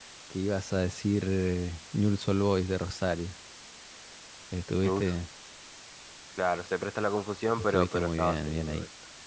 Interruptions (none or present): present